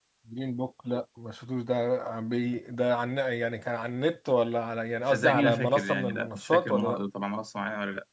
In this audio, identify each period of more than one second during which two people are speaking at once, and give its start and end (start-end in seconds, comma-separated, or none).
5.1-7.0